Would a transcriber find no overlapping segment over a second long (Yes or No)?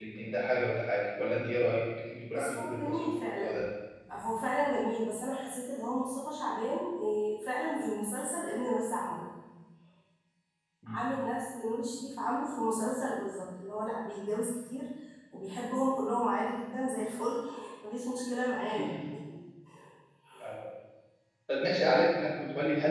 No